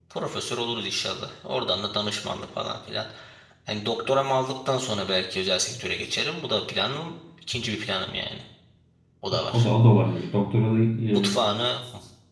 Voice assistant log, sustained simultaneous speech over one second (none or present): none